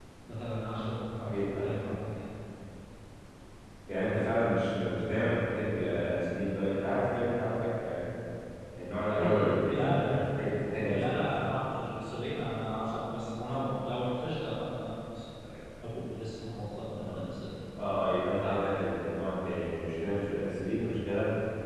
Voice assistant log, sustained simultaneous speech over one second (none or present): none